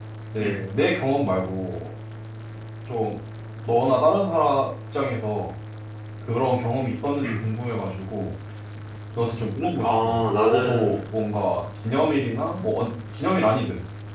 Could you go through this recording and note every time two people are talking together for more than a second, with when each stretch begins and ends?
9.8-11.0

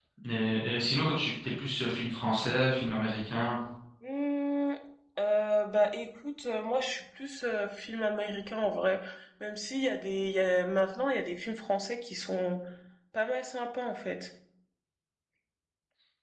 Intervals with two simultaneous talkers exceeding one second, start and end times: none

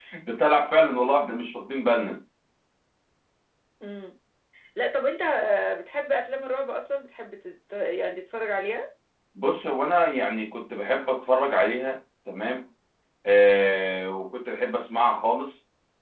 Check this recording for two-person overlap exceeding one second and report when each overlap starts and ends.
none

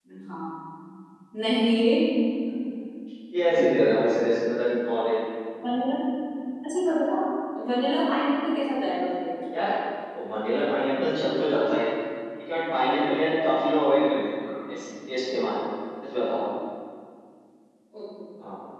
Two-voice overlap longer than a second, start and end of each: none

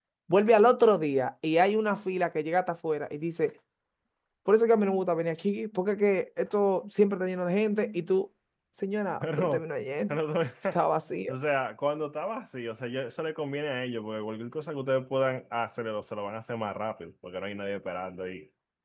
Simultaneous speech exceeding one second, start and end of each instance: none

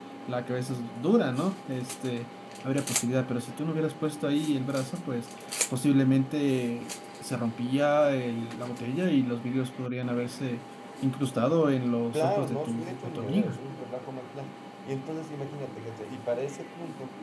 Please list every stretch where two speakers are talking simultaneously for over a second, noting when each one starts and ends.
12.1-13.6

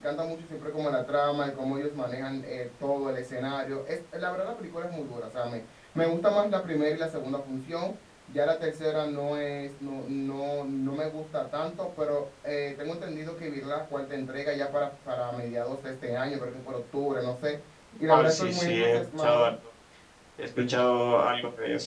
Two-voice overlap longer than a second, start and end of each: 18.1-19.5

